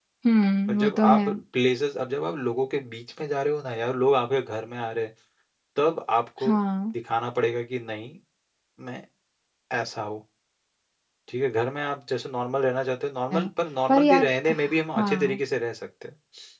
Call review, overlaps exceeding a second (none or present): present